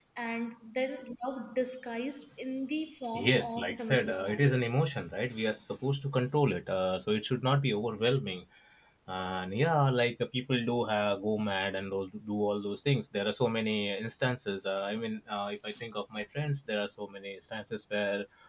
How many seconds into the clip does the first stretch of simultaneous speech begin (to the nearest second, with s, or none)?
3 s